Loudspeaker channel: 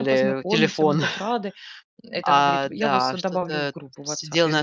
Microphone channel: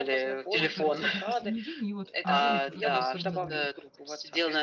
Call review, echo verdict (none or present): present